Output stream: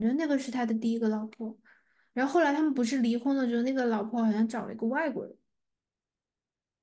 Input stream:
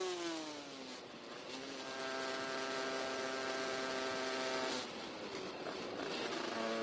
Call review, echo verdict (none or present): none